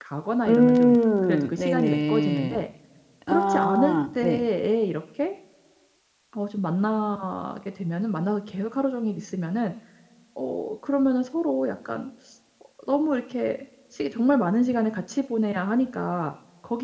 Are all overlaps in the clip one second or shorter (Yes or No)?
No